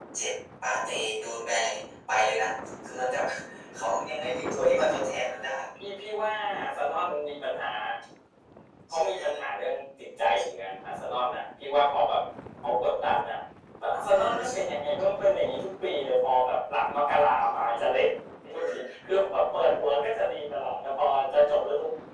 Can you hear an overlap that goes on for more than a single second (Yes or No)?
No